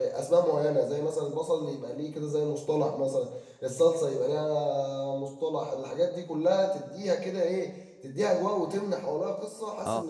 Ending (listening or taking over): taking over